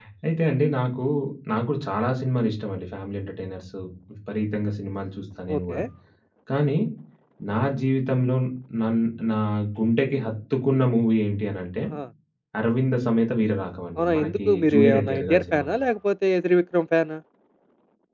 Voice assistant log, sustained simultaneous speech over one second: present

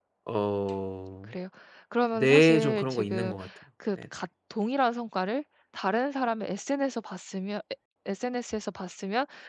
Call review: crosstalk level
present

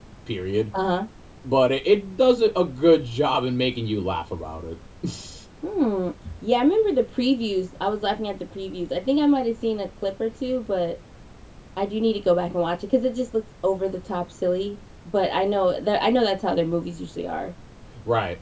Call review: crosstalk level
none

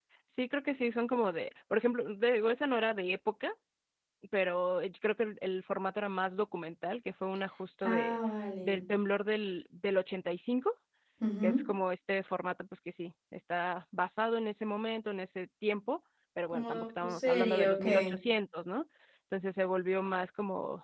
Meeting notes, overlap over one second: present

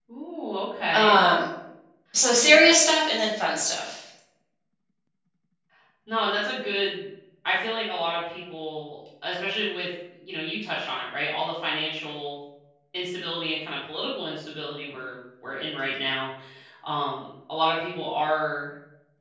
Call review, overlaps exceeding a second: none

